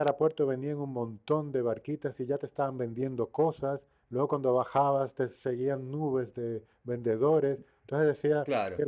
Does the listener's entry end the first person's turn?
No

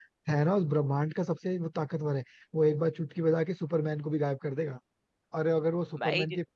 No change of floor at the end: Yes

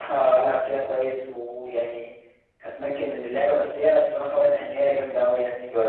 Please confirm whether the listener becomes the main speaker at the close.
Yes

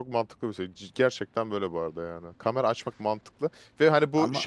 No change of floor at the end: Yes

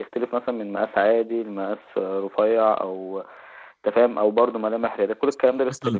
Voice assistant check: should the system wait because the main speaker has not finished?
No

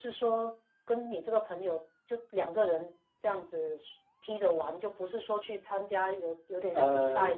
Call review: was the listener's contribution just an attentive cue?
Yes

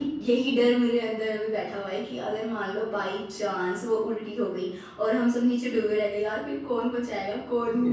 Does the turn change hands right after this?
Yes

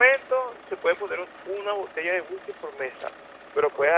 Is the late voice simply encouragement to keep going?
Yes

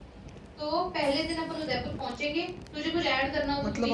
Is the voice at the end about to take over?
Yes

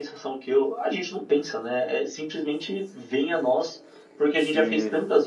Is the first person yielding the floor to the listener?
No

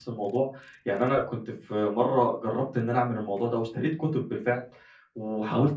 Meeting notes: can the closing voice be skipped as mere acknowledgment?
Yes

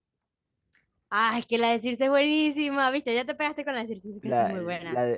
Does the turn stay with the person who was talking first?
No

